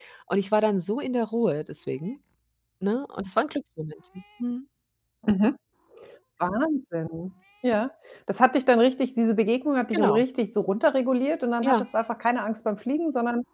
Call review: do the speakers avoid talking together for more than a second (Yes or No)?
Yes